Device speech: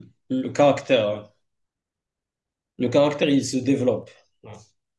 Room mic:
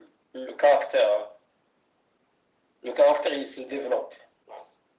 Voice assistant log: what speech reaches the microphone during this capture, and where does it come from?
echo only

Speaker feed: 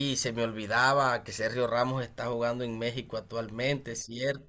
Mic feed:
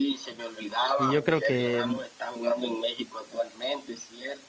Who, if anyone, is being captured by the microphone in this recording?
both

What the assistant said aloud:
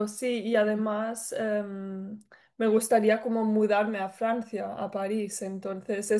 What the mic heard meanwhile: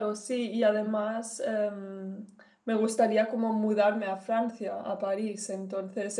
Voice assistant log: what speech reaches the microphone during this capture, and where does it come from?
echo only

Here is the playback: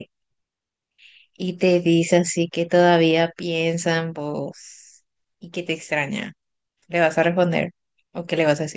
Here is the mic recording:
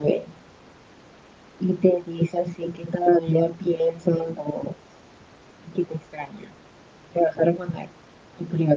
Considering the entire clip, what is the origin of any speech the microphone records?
echo only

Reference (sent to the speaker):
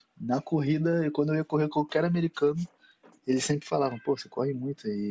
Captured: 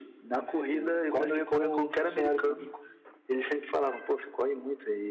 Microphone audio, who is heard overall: both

